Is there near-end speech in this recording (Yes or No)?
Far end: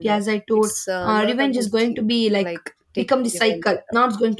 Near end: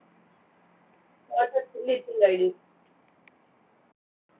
Yes